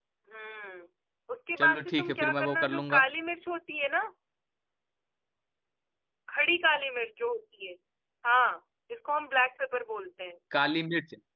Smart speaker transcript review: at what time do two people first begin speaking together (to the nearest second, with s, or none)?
2 s